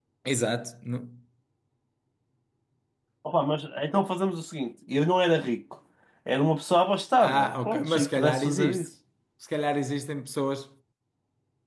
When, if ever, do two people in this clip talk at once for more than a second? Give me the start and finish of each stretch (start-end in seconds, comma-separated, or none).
7.2-8.9